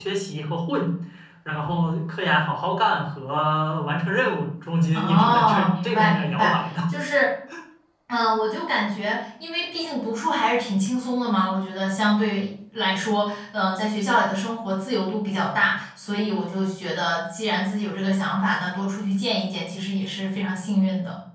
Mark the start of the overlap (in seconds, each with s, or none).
4.9 s